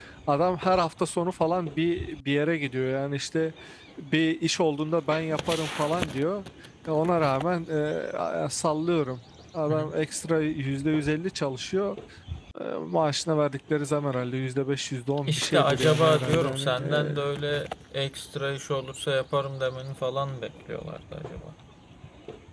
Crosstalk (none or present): present